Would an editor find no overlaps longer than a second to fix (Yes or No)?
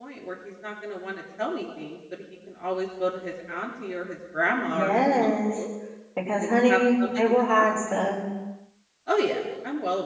No